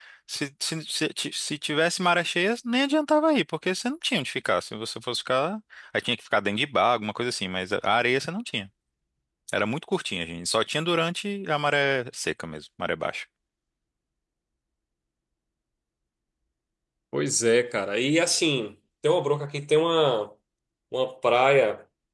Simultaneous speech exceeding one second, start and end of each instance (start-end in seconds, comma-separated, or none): none